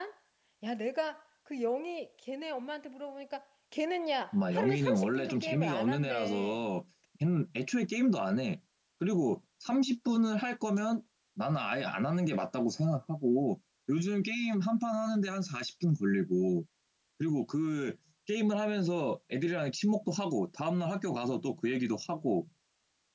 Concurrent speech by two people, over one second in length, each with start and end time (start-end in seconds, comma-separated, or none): 4.3-6.7